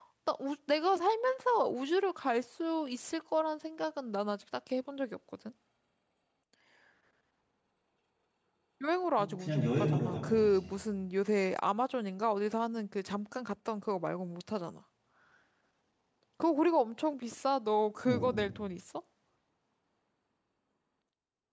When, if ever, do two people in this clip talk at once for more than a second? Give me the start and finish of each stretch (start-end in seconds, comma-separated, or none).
9.2-10.7